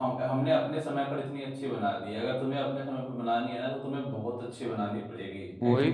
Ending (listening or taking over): taking over